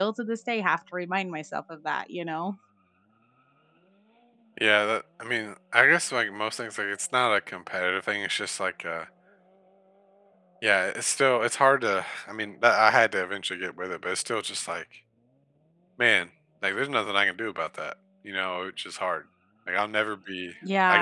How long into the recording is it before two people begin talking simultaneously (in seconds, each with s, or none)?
none